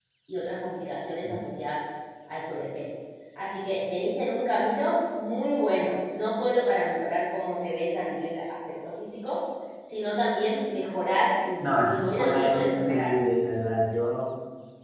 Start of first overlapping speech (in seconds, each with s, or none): 11.6 s